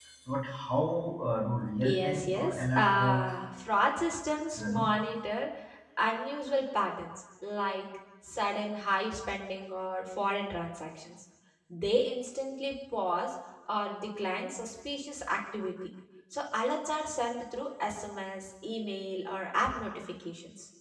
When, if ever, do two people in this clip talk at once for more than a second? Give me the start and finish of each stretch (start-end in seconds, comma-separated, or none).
1.8-3.2